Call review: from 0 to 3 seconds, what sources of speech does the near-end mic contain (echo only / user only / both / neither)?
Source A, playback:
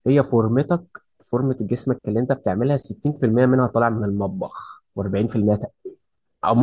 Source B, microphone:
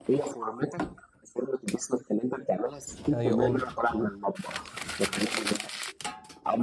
echo only